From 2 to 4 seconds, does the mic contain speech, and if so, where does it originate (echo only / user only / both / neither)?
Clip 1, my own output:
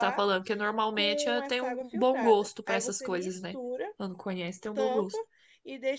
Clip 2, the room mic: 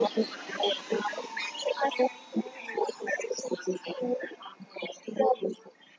echo only